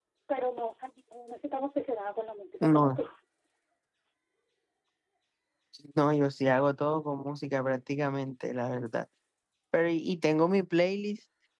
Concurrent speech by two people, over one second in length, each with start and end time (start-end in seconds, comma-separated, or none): none